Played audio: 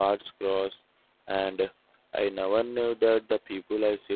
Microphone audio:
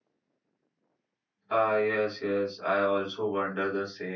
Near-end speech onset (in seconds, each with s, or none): 1.5 s